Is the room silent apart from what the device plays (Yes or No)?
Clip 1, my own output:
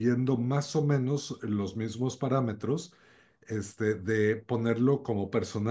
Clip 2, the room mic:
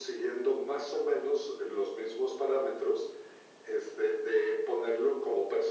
Yes